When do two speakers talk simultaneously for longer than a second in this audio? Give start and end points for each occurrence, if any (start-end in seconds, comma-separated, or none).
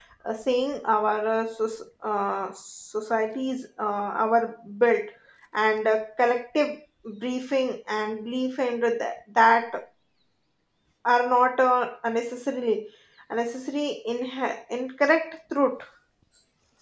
none